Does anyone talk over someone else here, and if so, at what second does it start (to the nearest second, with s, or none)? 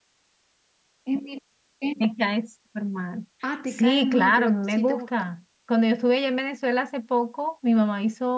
4 s